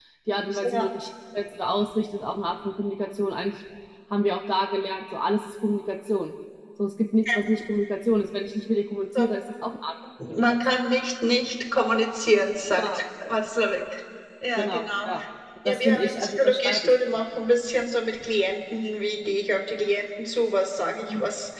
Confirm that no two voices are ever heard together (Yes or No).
No